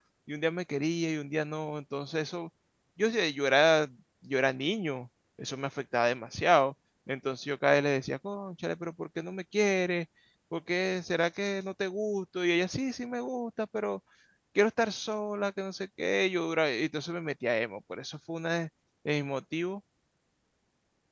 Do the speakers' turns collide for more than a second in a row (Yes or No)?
No